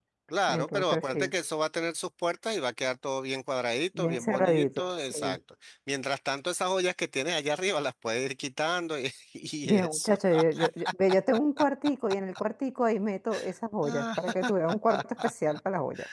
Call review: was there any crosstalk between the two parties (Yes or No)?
Yes